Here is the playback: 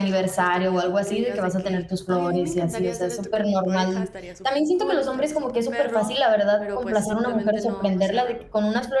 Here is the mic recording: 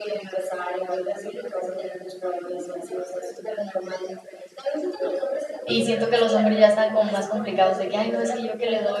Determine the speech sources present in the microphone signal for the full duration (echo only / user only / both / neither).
both